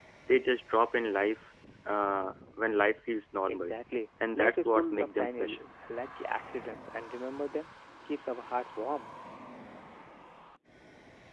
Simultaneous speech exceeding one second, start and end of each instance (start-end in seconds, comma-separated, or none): 4.4-5.6